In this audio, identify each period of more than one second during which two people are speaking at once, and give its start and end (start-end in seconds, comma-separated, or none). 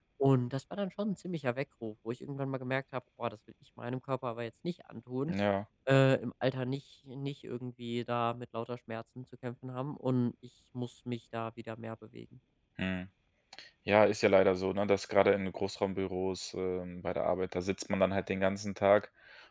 none